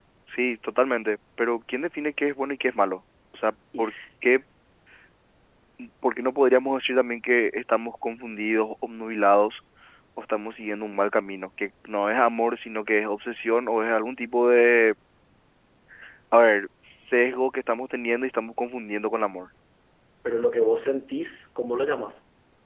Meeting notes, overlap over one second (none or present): none